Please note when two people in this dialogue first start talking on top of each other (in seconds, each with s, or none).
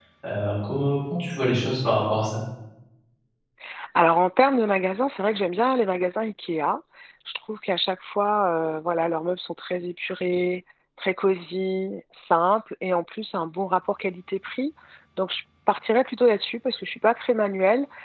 none